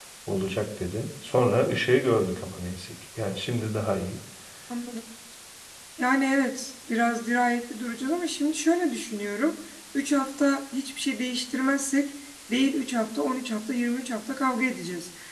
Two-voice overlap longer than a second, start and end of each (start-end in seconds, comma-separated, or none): none